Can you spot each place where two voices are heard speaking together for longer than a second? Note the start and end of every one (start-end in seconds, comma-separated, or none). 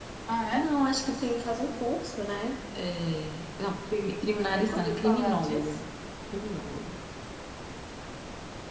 4.3-5.8